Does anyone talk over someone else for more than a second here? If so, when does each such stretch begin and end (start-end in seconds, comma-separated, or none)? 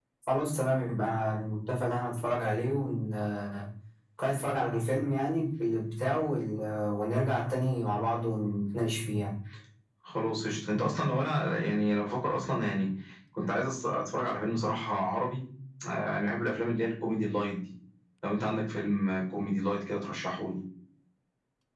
none